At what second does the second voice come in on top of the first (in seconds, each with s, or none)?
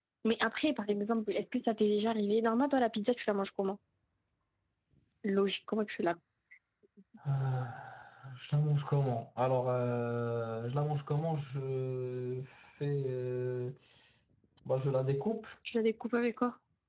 none